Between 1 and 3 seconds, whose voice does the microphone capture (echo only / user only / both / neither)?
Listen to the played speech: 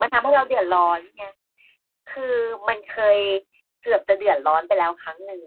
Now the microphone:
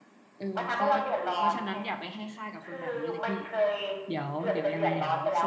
both